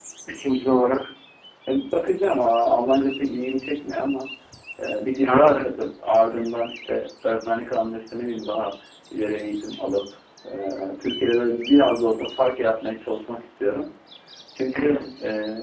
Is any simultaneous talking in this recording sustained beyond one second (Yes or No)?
No